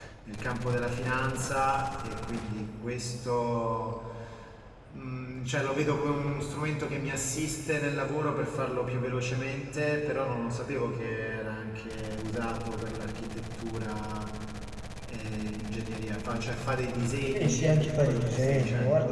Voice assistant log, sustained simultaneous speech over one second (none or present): present